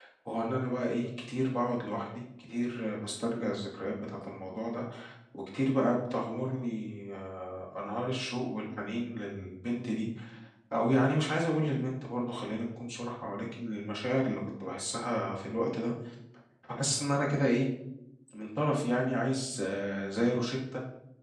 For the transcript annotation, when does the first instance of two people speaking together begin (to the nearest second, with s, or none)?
none